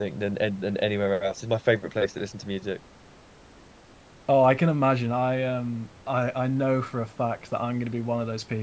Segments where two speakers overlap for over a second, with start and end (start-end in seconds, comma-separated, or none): none